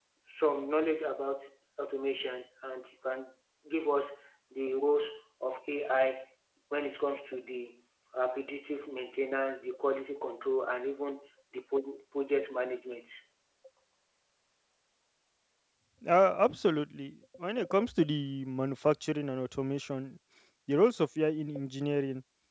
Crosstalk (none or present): none